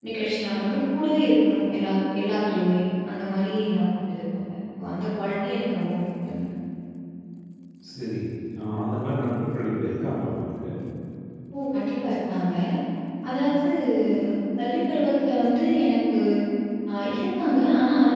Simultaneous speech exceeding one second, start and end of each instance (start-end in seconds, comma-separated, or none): none